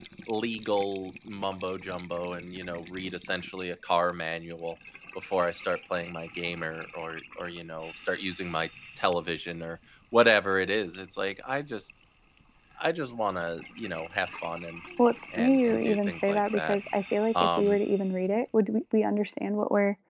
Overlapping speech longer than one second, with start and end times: 15.4-16.8

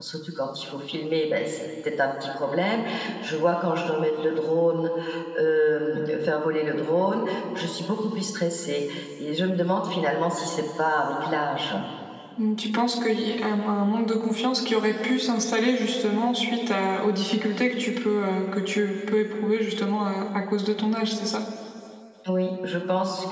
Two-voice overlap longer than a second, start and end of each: none

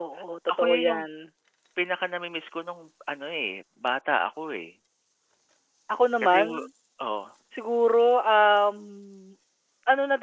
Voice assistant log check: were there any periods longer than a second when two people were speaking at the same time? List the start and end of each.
none

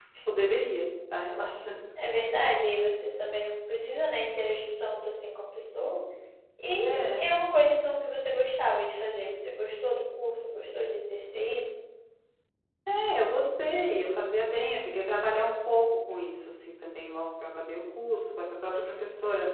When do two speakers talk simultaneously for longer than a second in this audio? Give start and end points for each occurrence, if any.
none

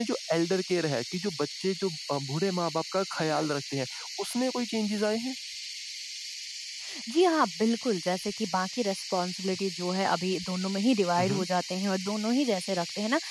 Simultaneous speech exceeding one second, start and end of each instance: none

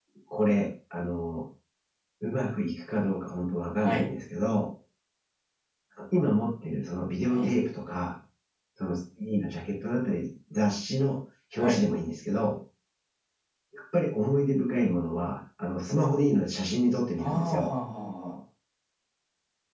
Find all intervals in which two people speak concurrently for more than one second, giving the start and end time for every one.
none

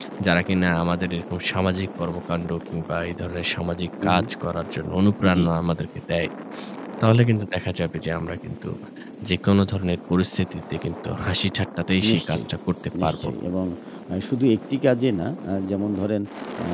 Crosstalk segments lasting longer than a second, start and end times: none

